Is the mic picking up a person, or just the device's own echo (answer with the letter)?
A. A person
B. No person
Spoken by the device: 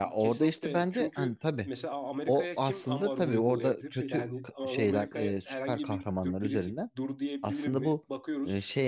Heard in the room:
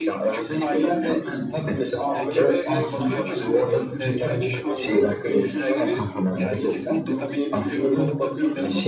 A